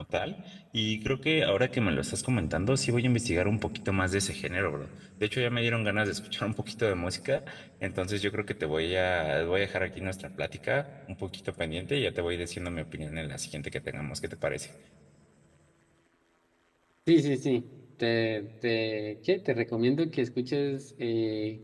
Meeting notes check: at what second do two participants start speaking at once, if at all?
none

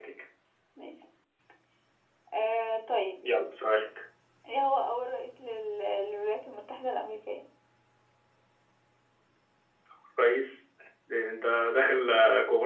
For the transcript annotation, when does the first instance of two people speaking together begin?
none

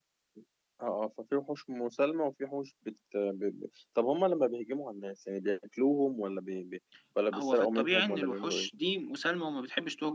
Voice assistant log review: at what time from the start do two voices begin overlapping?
7.3 s

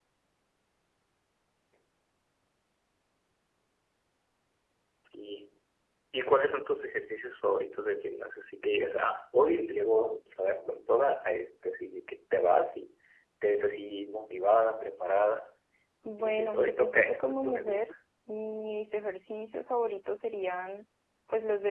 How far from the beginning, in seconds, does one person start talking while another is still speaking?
16.2 s

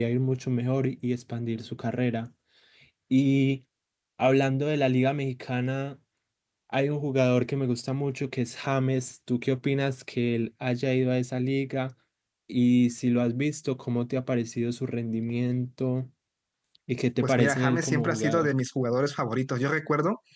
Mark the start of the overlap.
17.2 s

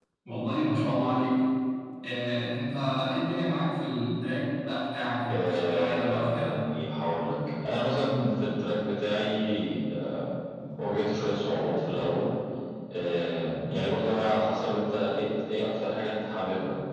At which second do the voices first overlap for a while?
5.3 s

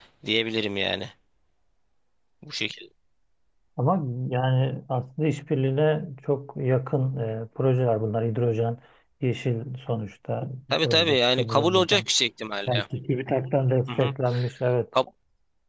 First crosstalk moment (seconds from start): 10.7 s

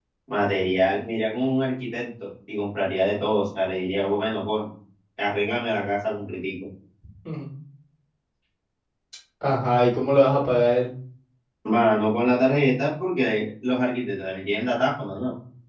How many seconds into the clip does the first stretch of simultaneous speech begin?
none

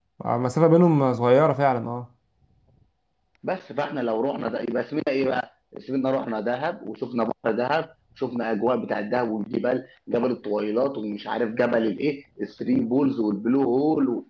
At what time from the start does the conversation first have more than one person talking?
none

